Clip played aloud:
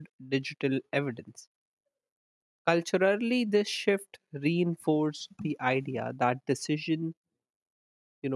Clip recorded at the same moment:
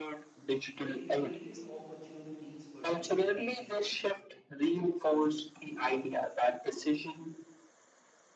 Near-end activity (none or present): present